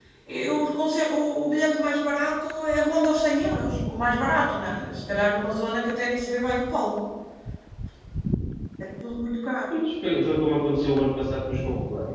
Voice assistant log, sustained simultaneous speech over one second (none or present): none